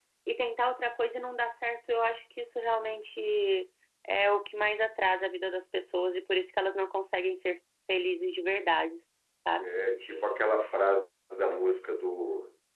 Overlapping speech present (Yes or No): No